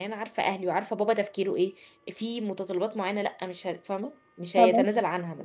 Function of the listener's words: listening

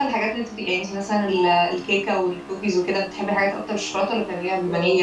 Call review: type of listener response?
taking over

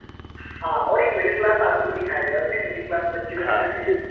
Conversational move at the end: taking over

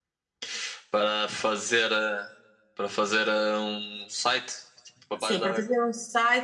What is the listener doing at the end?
taking over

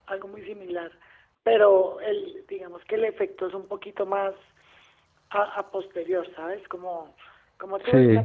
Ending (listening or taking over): listening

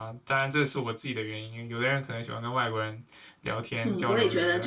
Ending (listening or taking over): taking over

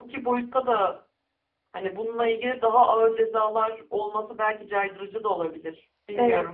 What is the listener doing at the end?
taking over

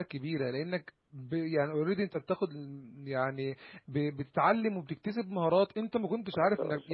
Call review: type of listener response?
listening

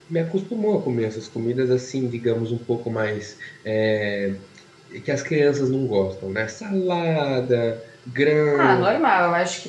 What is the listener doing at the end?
taking over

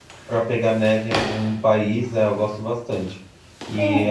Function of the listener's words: listening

